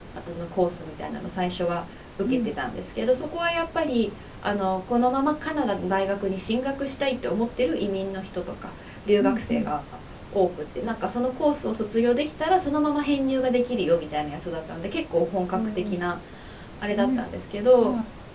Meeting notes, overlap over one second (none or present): none